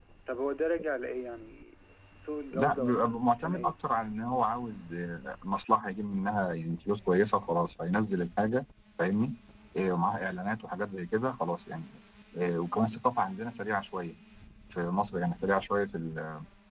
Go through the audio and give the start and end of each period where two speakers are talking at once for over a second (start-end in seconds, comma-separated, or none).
2.5-3.7